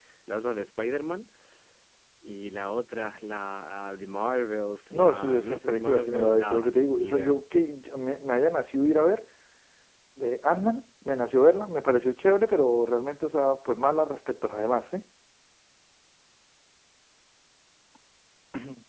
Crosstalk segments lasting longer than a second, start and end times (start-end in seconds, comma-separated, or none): 4.9-7.4